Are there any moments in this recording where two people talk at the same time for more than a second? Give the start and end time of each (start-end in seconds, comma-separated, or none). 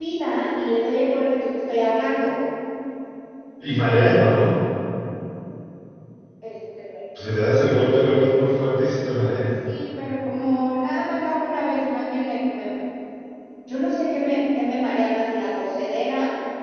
none